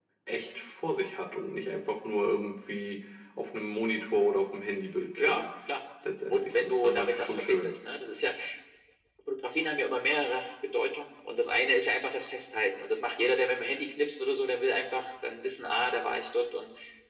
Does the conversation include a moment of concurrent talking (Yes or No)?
Yes